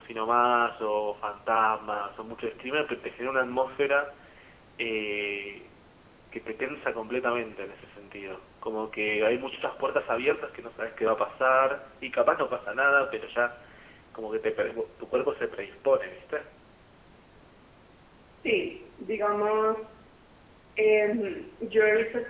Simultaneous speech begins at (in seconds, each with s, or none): none